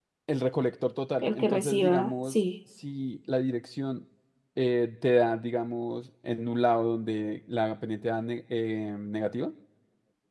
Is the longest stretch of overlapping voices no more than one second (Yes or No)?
No